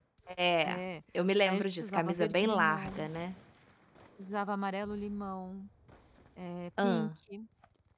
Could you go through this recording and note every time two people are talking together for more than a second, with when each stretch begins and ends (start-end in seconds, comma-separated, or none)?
1.5-3.1